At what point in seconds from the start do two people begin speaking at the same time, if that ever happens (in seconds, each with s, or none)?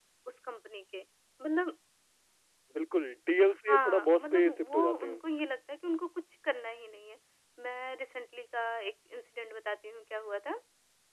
3.7 s